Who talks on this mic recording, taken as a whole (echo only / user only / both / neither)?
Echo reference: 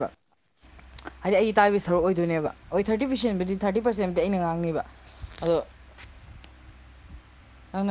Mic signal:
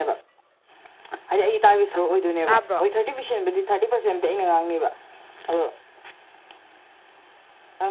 both